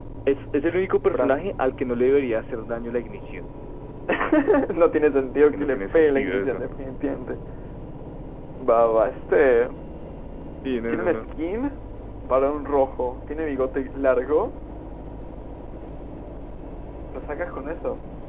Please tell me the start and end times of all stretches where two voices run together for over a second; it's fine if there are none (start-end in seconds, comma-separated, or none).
5.3-6.6